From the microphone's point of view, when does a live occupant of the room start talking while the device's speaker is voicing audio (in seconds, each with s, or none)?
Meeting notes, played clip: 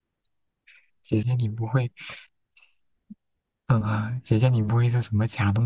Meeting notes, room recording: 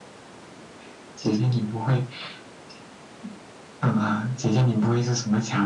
none